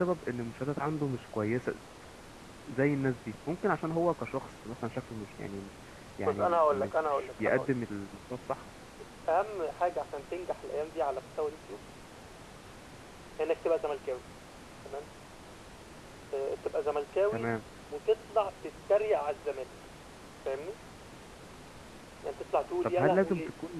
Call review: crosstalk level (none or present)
present